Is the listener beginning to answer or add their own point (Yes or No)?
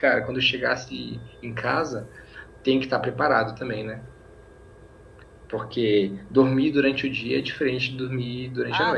Yes